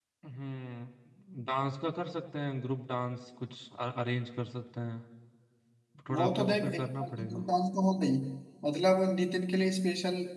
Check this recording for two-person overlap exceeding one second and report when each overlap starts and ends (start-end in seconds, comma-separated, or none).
6.2-7.4